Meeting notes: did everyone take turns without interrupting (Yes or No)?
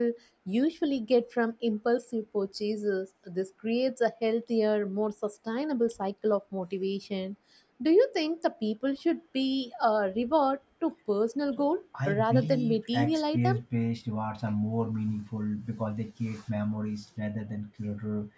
No